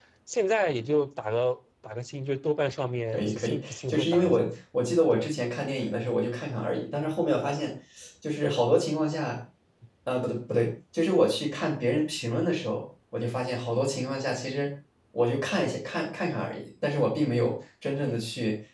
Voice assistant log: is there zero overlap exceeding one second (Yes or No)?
No